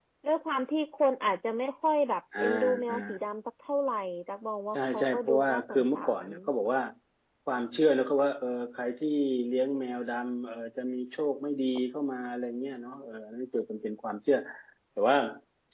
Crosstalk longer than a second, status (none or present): present